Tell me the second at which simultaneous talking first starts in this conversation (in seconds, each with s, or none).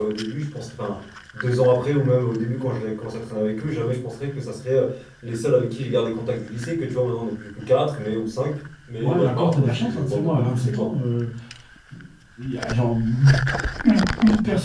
9.0 s